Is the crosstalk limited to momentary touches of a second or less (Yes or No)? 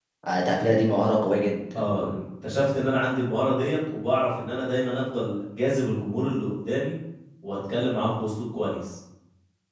Yes